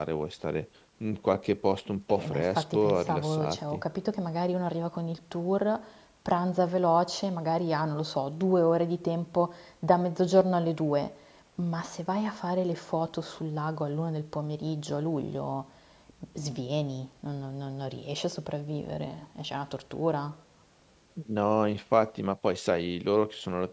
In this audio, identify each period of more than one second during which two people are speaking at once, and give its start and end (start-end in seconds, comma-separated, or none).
2.1-3.8